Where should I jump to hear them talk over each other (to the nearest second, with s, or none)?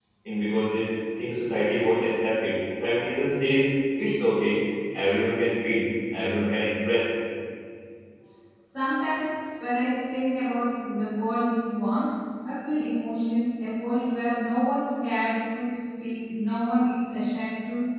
none